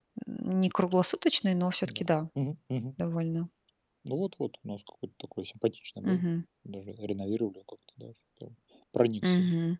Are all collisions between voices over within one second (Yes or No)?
Yes